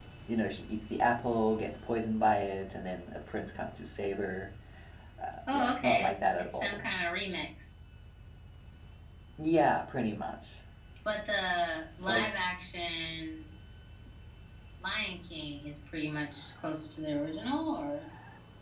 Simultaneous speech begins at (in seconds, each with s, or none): 5.5 s